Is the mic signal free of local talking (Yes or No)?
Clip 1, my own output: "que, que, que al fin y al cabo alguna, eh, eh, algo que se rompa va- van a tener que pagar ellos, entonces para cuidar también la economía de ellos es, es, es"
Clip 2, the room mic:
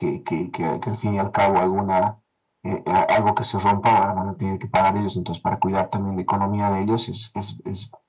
Yes